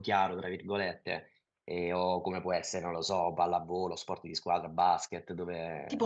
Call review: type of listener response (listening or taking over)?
taking over